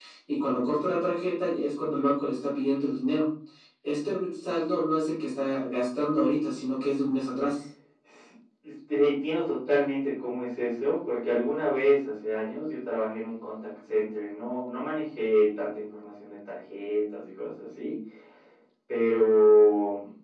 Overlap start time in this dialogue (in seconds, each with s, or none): none